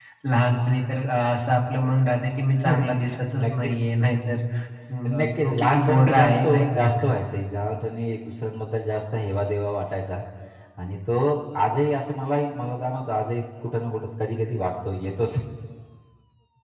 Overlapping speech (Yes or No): Yes